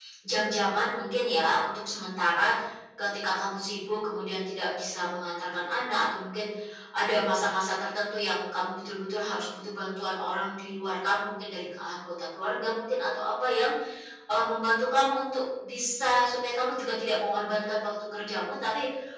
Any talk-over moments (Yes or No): No